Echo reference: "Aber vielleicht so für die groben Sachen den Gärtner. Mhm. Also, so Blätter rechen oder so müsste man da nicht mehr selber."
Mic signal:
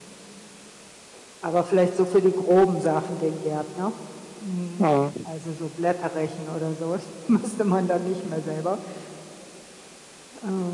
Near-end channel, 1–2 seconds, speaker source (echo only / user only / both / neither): echo only